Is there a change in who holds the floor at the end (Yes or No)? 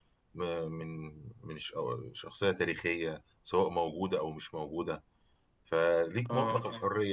No